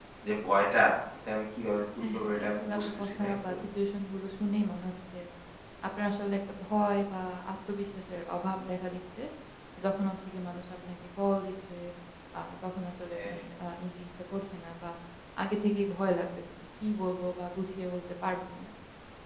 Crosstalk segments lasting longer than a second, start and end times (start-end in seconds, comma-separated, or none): 2.0-3.5